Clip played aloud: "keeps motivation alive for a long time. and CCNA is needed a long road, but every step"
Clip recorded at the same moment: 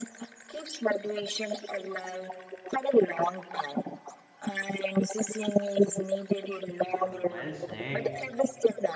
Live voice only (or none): Ah, well said.